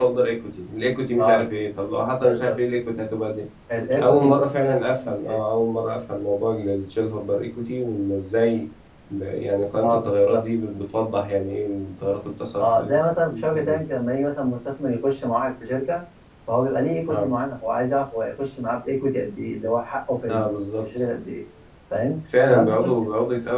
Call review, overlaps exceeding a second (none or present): present